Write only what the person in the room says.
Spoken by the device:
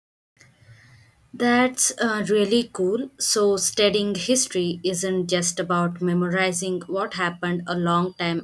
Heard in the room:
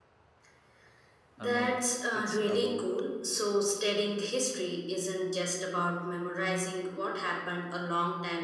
Uh, no, it's about

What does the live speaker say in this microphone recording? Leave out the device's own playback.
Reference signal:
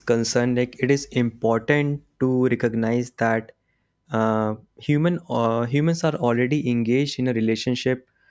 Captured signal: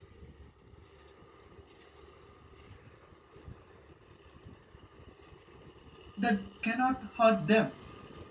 that cannot hurt them

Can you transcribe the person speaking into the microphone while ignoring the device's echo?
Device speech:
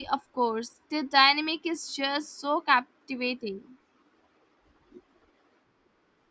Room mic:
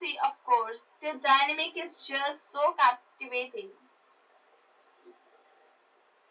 none

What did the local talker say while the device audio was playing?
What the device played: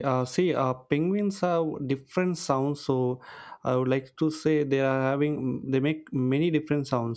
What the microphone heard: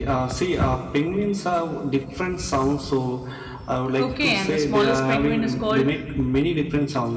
Okay, and the smallest penguin is called

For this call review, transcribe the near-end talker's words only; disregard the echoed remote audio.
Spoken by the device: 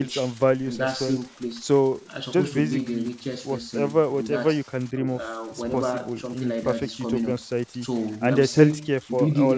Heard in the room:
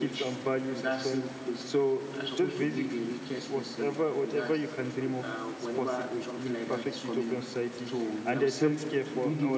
none

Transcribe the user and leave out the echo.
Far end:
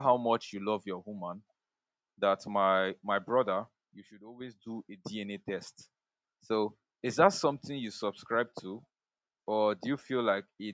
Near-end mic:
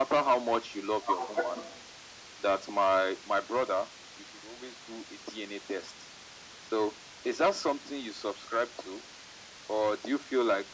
I was actually

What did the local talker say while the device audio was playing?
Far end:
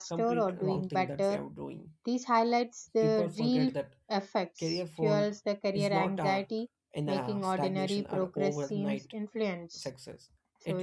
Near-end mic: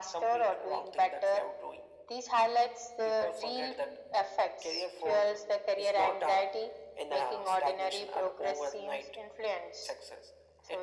none

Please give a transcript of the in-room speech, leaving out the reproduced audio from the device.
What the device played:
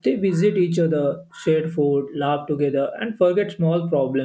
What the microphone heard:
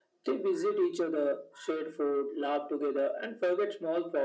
none

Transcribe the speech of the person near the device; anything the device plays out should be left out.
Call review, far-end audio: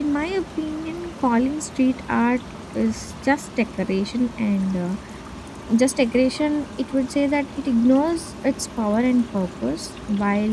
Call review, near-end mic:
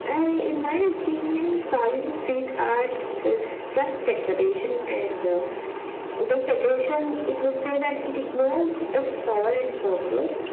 none

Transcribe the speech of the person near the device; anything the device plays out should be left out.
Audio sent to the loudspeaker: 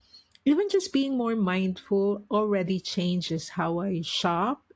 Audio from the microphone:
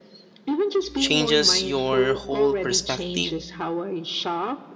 changes your whole perspective.

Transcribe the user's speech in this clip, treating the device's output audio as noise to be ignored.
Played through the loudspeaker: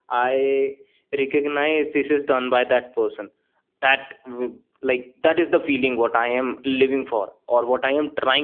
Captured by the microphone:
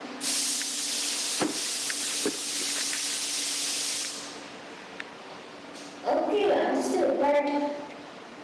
Okay, understood. But

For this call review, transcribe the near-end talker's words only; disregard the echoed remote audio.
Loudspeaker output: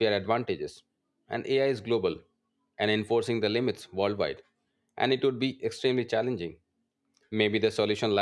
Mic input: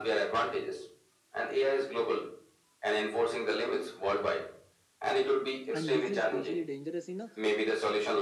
and this is especially dangerous in a

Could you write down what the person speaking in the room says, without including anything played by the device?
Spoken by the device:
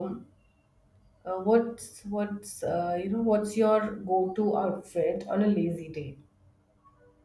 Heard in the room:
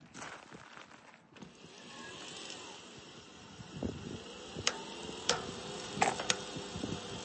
none

